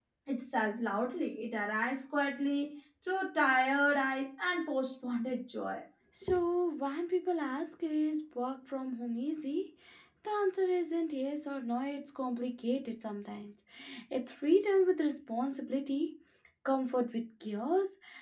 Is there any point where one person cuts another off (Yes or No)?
No